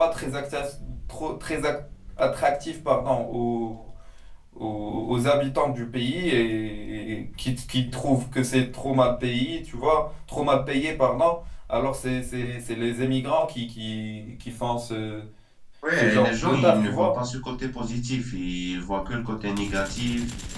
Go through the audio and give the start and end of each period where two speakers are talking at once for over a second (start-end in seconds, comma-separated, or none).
15.9-17.1